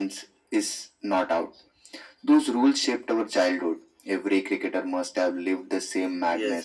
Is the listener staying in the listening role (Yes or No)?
No